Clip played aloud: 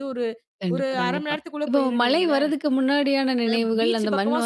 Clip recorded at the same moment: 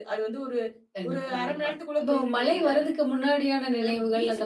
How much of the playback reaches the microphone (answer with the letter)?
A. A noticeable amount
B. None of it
A